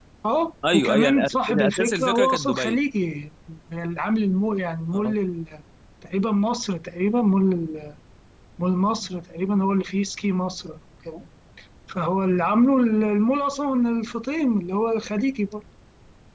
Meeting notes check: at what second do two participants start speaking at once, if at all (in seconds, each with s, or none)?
0.7 s